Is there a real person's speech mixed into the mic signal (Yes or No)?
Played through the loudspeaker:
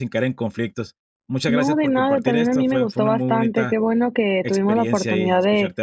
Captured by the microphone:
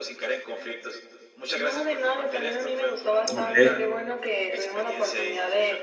Yes